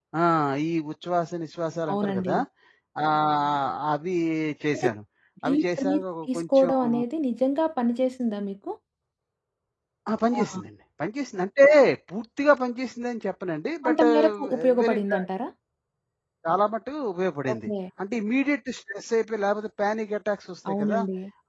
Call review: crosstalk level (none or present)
present